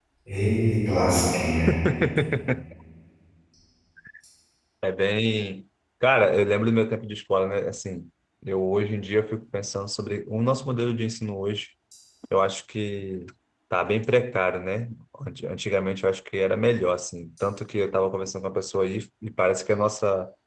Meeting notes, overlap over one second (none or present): none